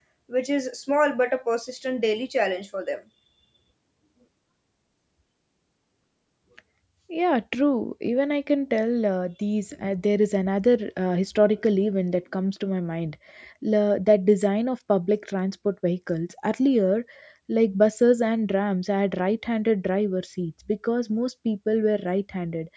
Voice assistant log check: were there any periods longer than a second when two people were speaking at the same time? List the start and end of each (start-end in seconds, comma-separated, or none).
none